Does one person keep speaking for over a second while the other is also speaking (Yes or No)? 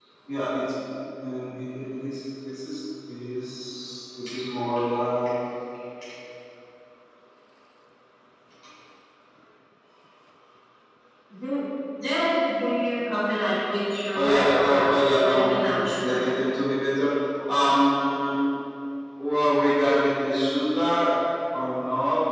Yes